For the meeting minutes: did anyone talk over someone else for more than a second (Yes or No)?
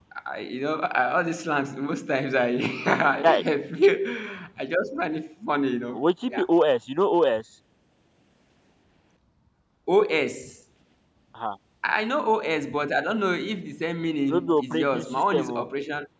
Yes